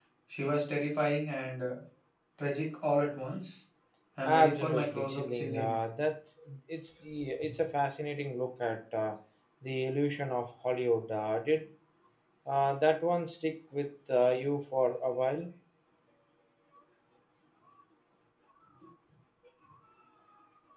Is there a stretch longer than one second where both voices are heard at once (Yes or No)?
Yes